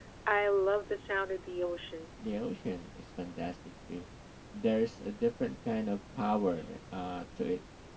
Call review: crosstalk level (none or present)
none